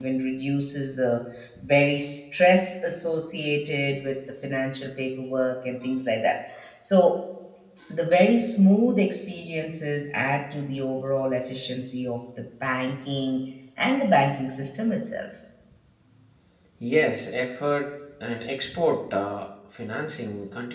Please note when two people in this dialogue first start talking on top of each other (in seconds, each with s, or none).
none